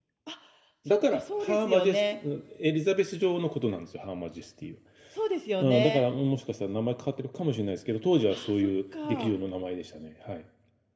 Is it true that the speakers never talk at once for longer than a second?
No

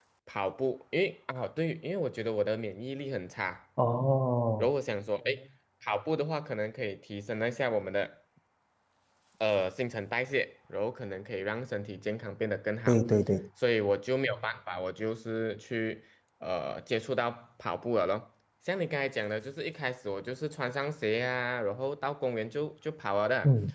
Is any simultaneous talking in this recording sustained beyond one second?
No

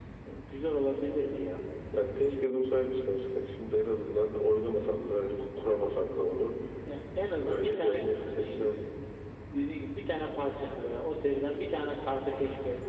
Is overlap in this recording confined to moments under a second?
No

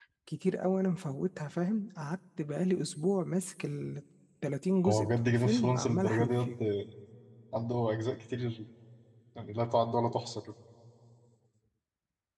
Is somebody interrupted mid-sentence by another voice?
Yes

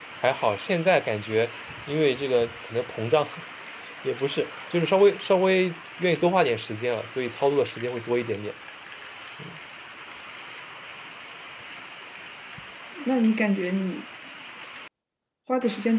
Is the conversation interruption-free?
Yes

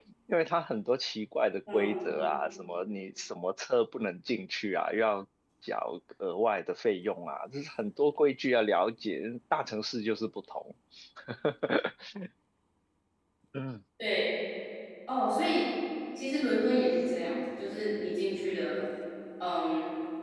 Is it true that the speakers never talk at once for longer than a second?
Yes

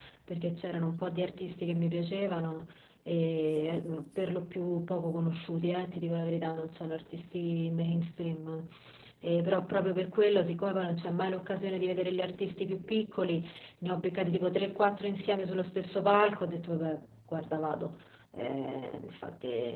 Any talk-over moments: No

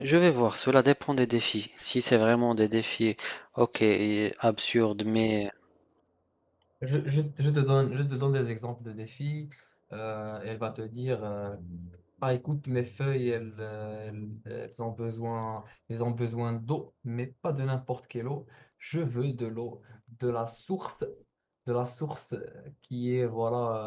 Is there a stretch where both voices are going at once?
No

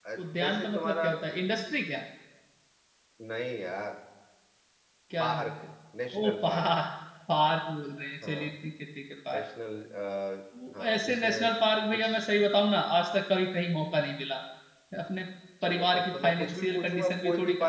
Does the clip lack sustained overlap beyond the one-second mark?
No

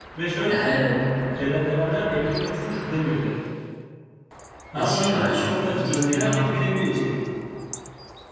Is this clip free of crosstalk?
No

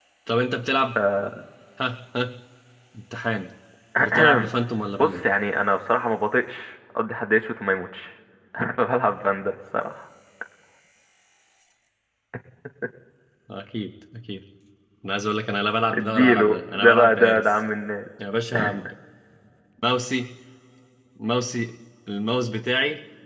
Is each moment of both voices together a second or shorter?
No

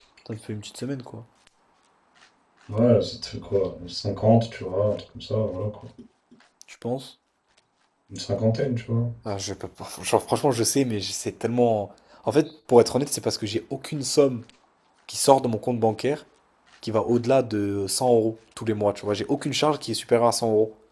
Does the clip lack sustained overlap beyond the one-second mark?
Yes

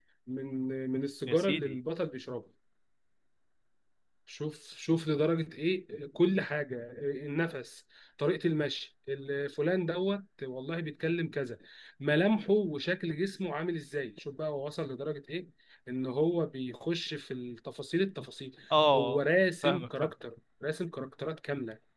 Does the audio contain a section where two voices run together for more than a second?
No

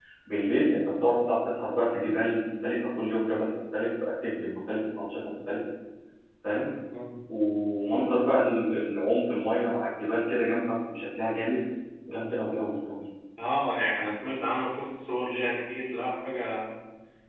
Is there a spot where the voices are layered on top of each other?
No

